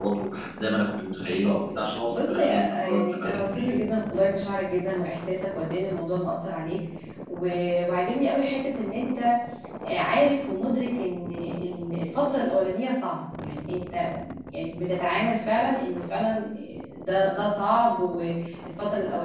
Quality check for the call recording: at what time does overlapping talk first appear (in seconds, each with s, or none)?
2.0 s